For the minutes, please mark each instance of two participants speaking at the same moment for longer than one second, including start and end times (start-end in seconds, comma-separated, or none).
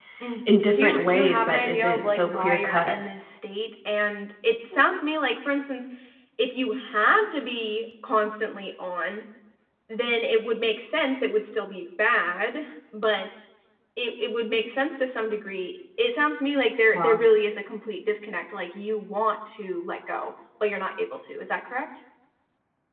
0.7-3.0